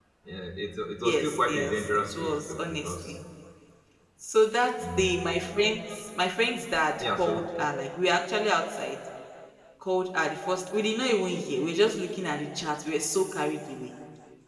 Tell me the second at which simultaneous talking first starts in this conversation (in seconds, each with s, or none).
1.0 s